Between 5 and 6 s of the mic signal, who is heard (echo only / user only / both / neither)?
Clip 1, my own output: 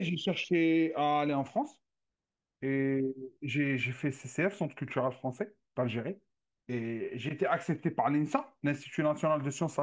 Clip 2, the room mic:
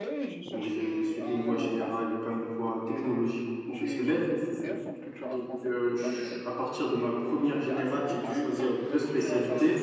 both